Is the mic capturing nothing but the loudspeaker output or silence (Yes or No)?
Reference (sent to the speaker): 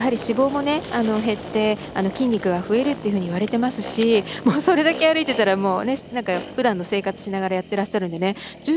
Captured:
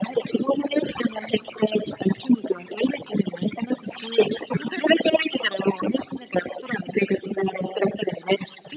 Yes